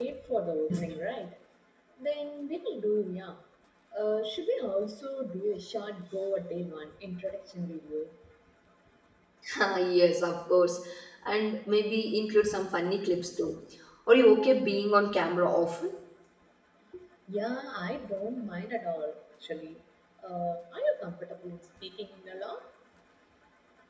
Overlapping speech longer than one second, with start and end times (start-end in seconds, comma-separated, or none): none